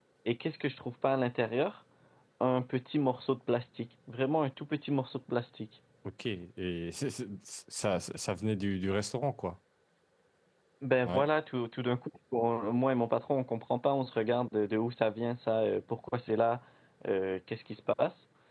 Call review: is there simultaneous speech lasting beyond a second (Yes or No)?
No